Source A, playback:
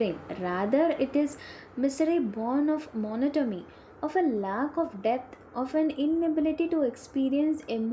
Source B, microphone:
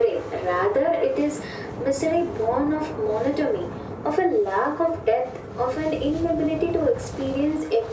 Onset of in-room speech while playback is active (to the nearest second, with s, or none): none